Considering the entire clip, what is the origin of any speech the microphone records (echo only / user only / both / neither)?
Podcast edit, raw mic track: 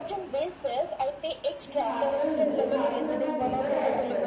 both